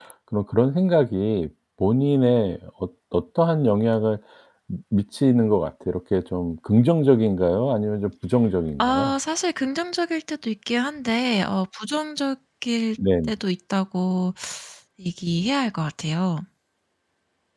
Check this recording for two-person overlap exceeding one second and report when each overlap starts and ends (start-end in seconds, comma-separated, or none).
none